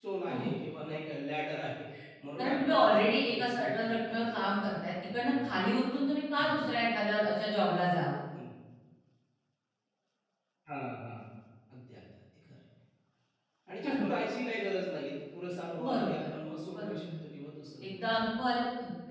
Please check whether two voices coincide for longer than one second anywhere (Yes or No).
Yes